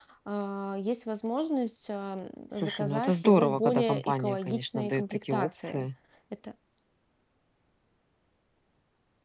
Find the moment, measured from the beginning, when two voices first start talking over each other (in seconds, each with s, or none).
2.5 s